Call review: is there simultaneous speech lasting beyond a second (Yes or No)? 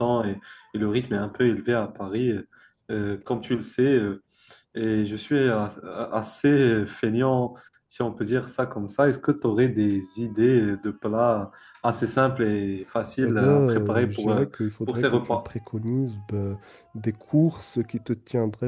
Yes